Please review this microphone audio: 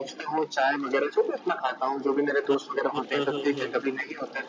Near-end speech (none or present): present